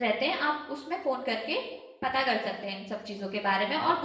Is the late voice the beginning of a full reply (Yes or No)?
Yes